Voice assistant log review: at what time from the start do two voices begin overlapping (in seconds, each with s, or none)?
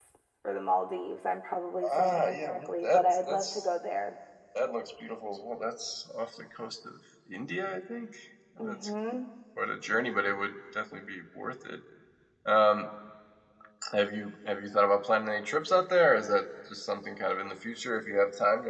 2.0 s